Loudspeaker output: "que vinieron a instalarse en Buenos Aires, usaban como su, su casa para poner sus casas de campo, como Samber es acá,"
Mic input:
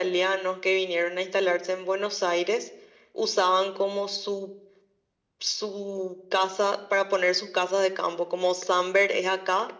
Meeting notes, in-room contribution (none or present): none